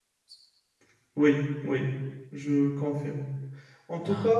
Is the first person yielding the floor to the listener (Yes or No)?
No